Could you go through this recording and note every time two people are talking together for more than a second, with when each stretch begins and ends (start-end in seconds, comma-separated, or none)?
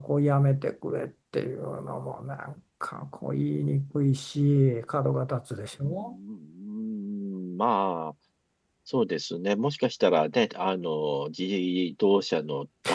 none